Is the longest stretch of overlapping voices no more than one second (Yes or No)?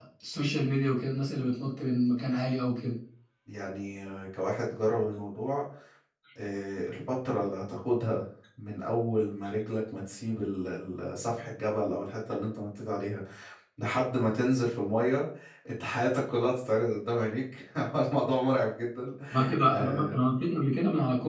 Yes